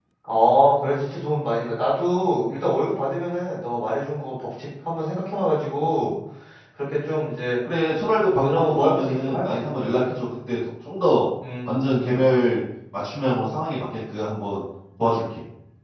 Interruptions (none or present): present